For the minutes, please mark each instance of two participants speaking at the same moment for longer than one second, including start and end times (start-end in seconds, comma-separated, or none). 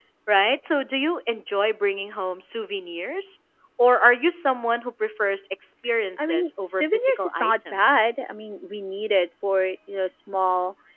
6.2-8.1